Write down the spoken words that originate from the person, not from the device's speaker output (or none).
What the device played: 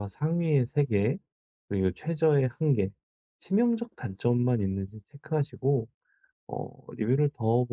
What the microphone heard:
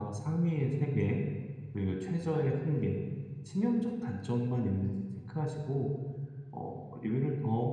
none